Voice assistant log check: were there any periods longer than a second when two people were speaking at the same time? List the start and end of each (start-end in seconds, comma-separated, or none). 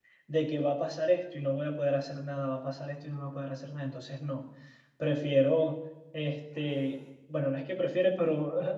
none